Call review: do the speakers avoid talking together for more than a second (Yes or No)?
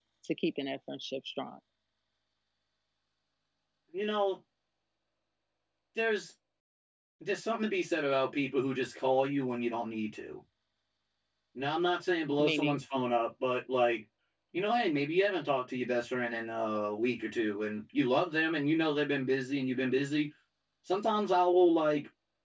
Yes